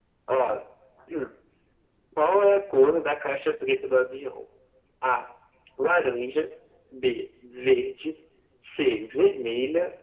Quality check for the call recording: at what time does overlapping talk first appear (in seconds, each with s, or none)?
none